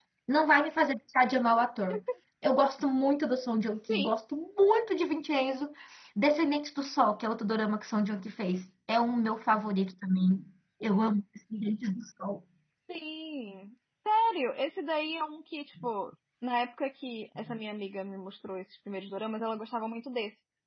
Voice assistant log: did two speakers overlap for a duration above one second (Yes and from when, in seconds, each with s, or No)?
No